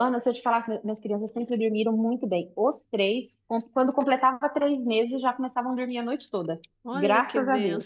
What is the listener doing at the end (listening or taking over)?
taking over